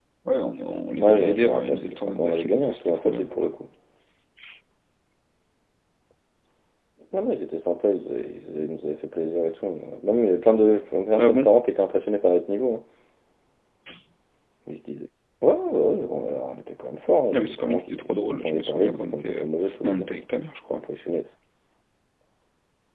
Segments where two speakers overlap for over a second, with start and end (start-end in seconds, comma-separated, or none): 1.0-3.3, 17.3-19.4